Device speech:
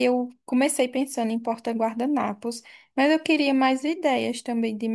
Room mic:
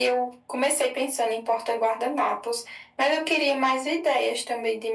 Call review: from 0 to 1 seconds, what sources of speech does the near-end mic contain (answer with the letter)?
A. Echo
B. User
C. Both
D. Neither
A